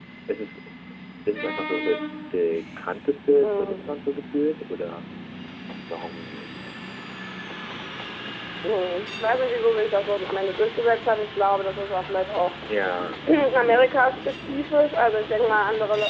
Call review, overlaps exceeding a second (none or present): none